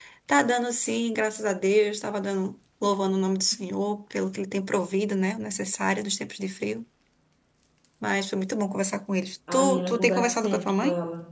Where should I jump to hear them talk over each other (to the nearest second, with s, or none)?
9 s